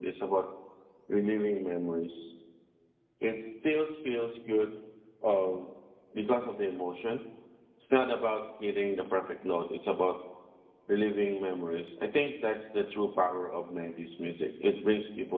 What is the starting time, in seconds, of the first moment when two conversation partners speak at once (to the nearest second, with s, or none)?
none